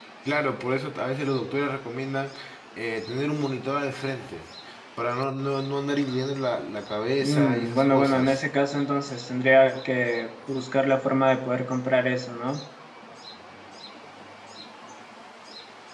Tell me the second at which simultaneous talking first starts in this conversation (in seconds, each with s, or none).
7.2 s